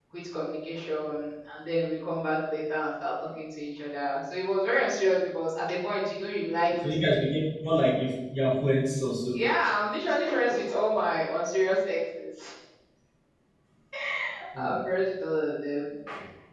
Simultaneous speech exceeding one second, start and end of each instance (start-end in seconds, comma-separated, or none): none